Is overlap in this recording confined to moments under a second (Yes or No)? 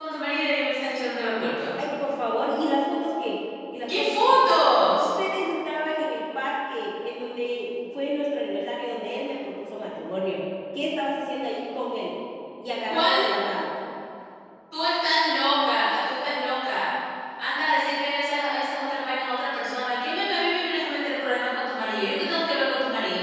Yes